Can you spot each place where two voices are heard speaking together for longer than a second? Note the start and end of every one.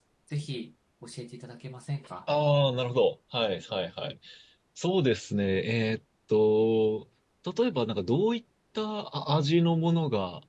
none

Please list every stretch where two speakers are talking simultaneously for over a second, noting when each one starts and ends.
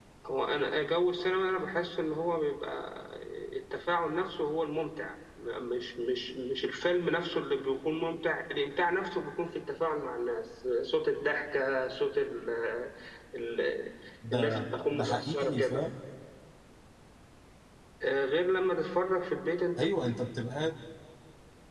14.3-15.9

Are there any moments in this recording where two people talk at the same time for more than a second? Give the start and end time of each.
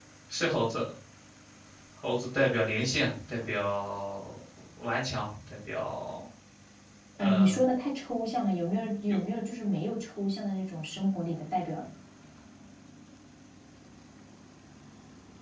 none

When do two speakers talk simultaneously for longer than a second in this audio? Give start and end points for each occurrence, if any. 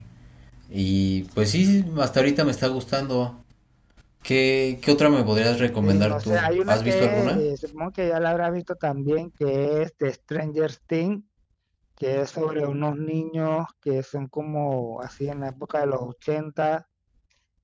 5.8-7.5

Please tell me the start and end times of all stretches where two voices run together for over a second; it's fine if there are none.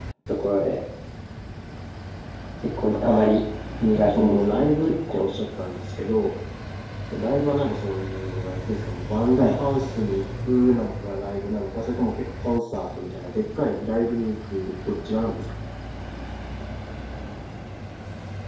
3.9-5.2

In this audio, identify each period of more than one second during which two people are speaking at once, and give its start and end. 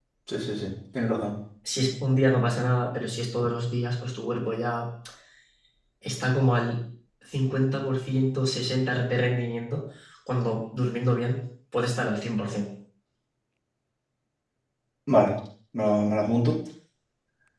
none

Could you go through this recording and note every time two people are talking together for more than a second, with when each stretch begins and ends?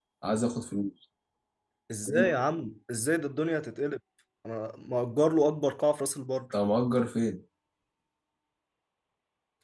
none

